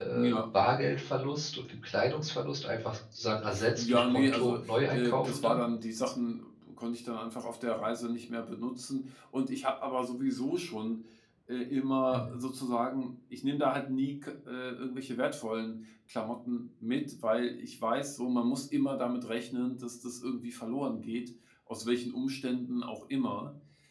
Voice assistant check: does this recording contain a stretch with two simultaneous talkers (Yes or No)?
Yes